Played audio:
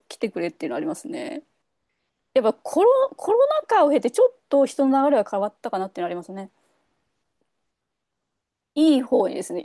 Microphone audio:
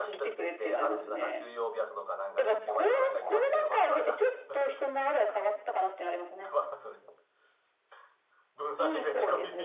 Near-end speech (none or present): present